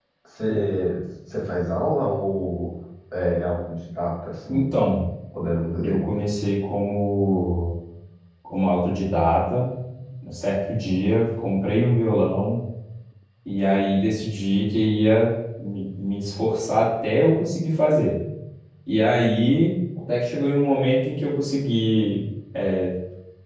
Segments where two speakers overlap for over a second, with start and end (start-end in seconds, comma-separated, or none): none